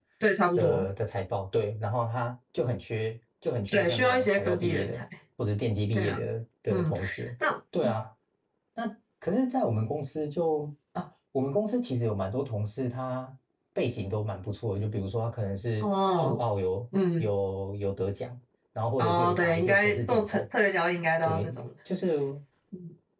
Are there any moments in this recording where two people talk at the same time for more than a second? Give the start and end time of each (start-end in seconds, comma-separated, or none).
3.7-4.9, 19.0-20.4